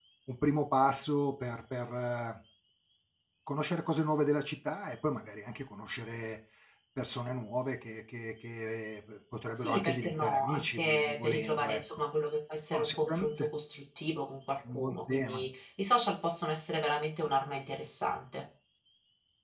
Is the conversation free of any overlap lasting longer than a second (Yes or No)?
No